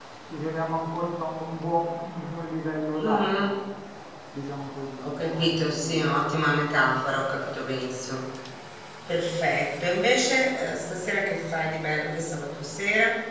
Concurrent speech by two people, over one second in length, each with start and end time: 5.0-6.3

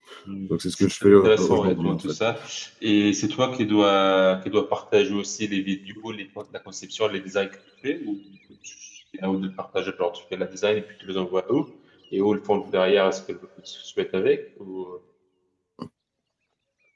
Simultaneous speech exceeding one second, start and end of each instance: 0.8-2.2

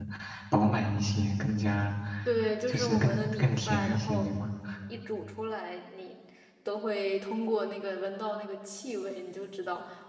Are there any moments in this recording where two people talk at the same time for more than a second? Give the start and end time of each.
2.7-4.3

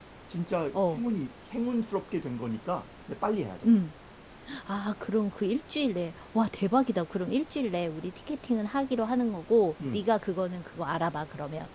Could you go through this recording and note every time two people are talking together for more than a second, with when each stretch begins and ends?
none

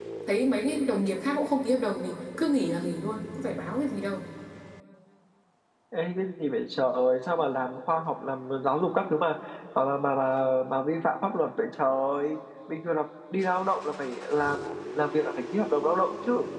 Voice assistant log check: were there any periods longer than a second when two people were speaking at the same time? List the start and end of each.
none

